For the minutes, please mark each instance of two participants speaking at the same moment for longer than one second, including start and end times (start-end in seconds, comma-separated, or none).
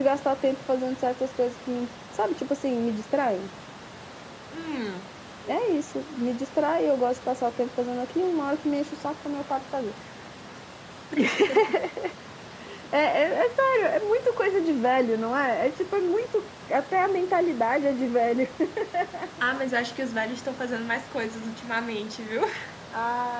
none